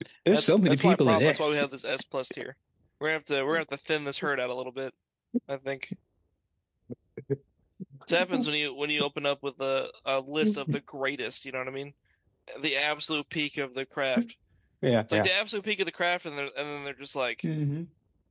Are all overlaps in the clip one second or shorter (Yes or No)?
No